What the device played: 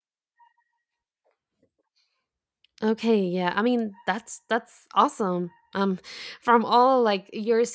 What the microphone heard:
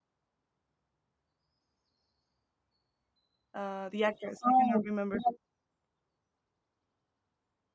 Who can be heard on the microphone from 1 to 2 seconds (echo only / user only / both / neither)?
neither